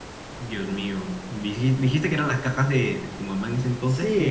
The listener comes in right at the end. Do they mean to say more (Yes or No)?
Yes